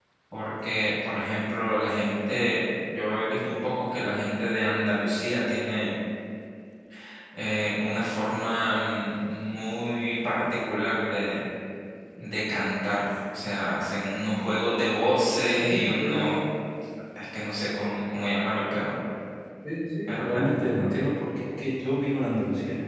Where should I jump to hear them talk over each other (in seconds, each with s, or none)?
15.0 s